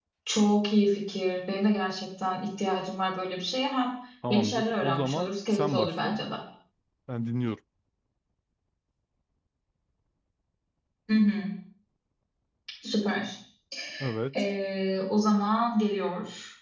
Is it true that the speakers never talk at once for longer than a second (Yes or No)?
No